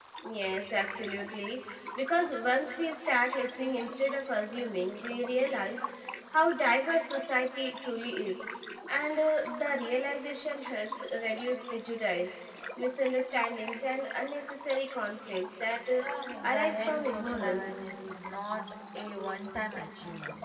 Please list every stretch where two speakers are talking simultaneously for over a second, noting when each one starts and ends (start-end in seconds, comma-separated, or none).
16.4-17.8